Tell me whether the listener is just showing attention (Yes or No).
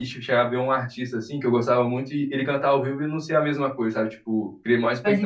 Yes